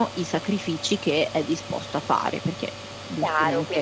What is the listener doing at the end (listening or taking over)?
taking over